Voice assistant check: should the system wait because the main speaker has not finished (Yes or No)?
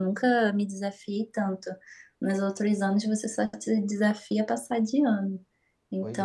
Yes